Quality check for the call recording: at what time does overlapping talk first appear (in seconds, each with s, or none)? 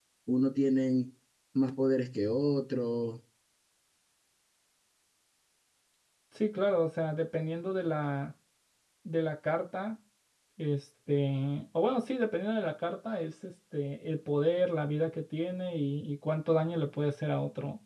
none